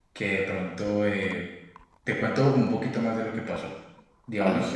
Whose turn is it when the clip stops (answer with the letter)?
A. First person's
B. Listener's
A